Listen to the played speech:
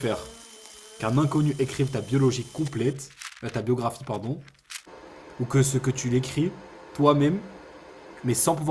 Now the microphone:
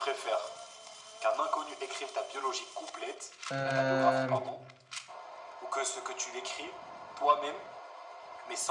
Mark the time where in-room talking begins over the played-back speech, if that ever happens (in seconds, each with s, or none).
3.5 s